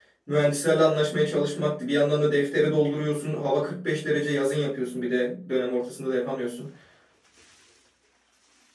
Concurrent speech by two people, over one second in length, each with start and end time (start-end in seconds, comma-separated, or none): none